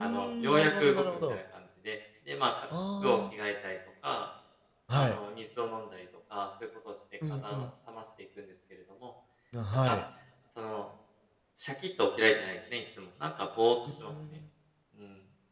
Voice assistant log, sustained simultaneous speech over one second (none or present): present